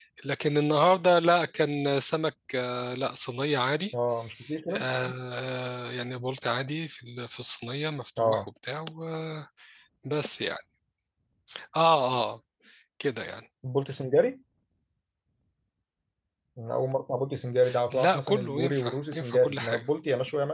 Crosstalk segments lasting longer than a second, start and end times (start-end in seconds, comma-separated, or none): 17.9-19.8